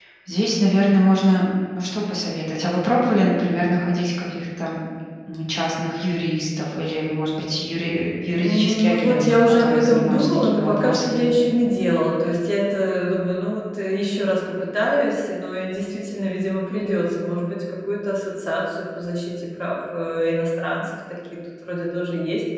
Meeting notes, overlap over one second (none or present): present